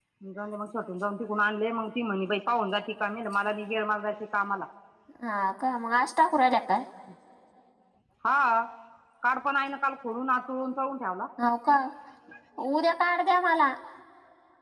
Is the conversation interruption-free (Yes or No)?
Yes